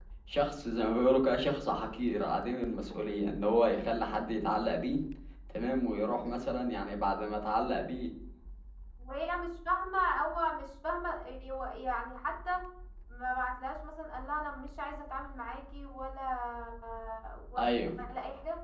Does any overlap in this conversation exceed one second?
No

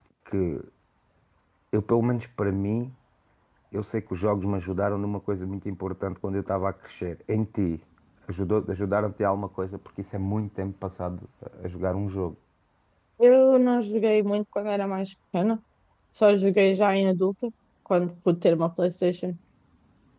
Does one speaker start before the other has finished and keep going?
No

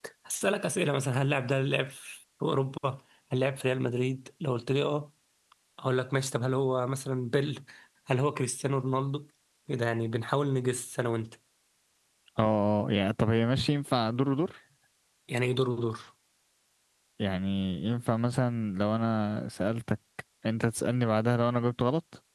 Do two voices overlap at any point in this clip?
No

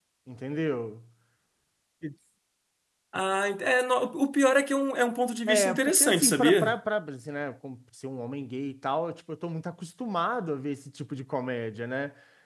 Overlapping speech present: Yes, from 5.5 s

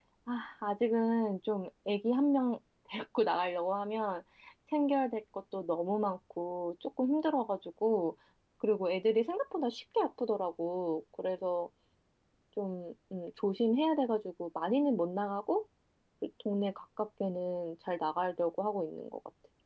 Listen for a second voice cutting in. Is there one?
No

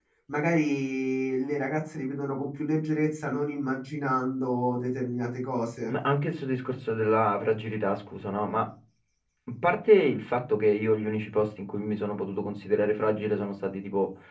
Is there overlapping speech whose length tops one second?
No

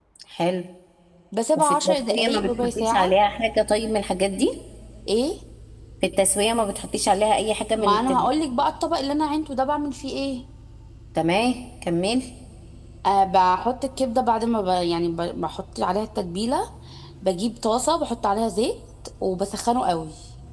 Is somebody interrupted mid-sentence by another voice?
Yes, from 1.6 s

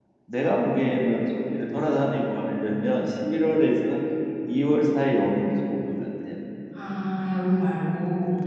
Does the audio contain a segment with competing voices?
No

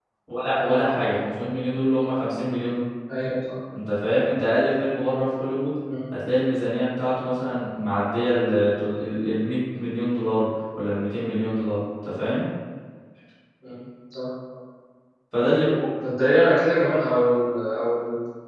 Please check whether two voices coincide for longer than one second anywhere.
No

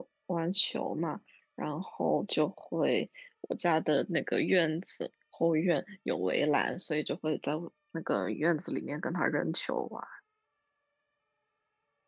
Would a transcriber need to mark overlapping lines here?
No

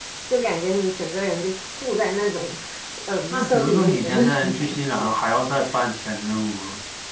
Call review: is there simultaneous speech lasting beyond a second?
Yes, from 3.3 s

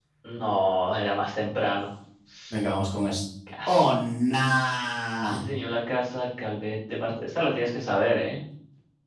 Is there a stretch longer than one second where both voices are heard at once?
No

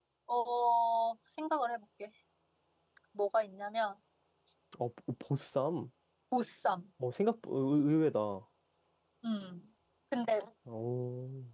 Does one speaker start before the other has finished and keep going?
No

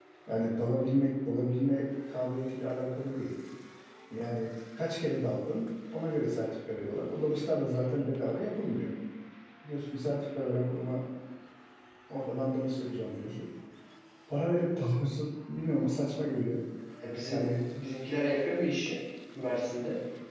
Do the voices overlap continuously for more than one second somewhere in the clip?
No

